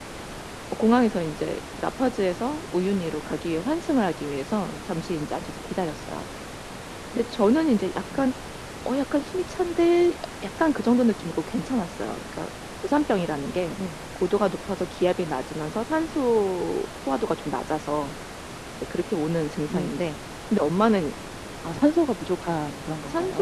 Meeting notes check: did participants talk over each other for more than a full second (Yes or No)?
No